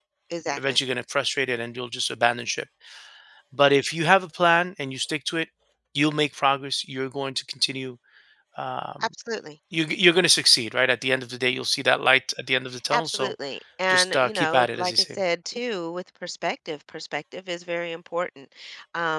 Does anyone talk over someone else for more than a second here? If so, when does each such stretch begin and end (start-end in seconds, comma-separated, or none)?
13.9-15.2